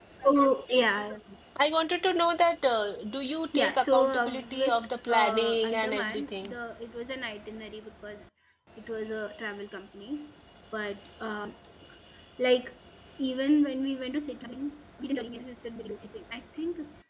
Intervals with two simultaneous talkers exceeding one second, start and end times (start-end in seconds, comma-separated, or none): 3.6-6.5